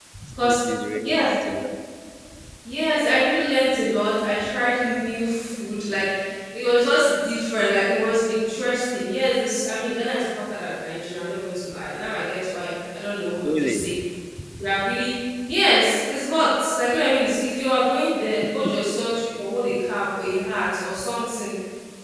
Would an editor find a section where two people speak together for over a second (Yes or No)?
No